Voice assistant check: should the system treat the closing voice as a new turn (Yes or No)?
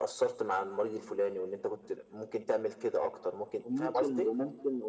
Yes